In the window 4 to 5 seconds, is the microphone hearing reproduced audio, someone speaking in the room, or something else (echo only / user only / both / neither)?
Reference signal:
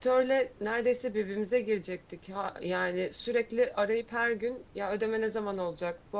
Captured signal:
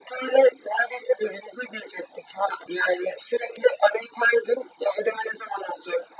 echo only